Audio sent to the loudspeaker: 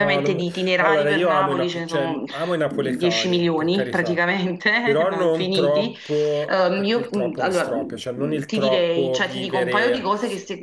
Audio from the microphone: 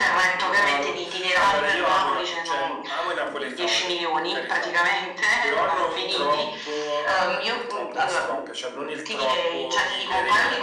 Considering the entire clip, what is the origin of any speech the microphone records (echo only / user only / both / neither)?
echo only